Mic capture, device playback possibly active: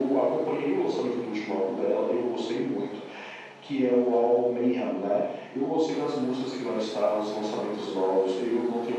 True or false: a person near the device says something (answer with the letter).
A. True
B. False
B